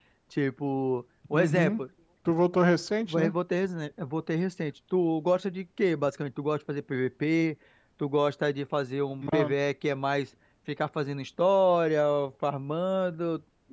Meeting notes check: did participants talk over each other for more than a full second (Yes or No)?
No